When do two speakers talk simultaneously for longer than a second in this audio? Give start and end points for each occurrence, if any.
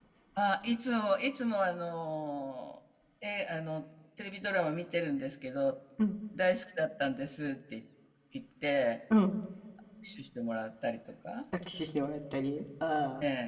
none

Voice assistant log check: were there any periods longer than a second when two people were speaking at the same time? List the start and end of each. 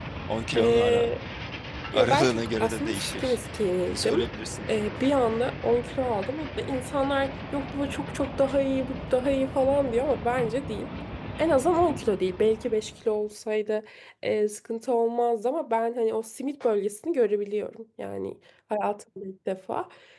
1.9-3.4

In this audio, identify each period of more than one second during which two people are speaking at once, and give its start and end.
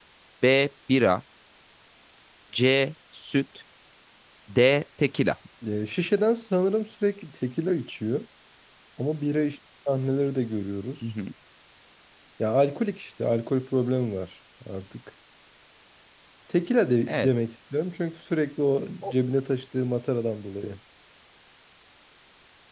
none

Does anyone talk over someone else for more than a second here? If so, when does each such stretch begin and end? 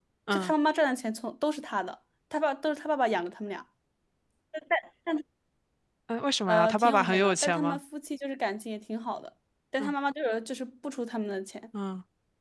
6.5-7.8

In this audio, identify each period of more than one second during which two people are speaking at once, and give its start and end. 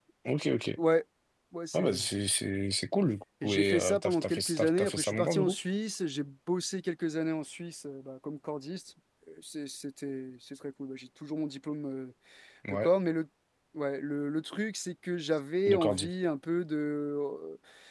3.4-5.5

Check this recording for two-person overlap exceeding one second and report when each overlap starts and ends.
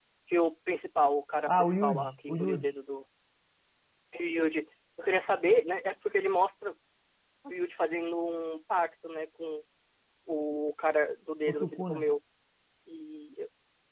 1.5-2.7

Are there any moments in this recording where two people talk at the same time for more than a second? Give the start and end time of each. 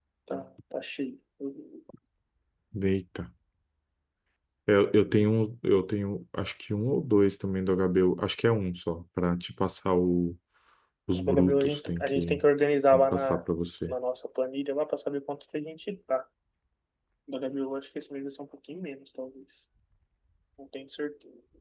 11.2-12.4

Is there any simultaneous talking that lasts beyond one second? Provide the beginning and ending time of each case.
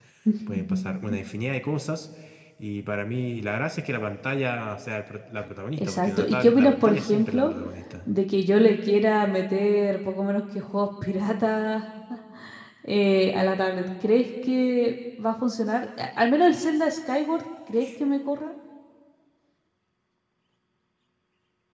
5.8-7.5

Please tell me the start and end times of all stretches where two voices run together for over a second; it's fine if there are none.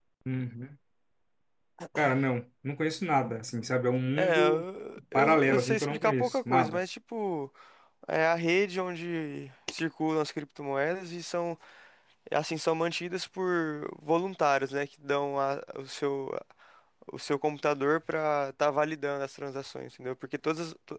5.1-6.8

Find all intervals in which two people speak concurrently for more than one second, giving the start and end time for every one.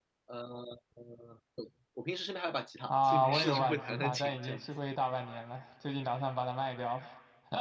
2.9-4.6

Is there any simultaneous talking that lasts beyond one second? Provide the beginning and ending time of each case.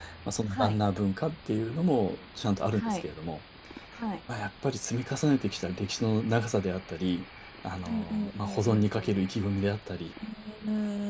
7.9-9.2

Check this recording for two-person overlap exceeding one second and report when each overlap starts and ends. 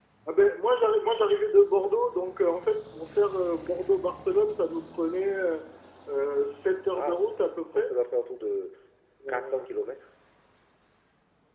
none

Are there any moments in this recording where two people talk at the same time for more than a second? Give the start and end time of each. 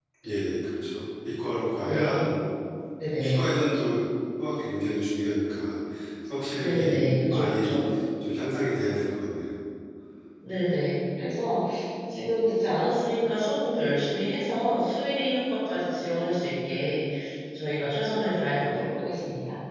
6.5-7.8

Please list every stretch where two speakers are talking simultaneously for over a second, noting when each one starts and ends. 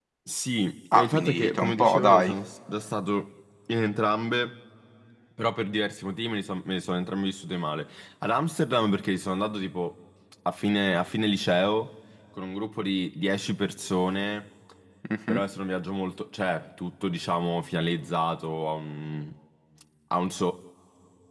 0.9-2.3

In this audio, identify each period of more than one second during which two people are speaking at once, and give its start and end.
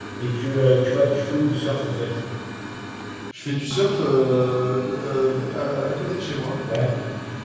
none

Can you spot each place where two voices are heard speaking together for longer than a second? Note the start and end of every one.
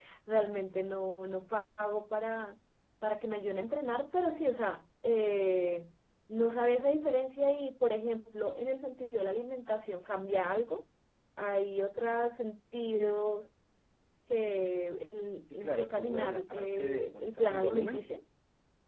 15.5-18.1

